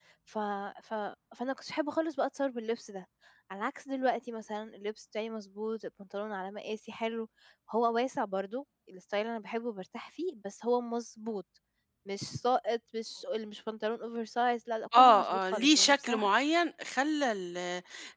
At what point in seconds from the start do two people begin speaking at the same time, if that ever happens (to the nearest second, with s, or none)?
15 s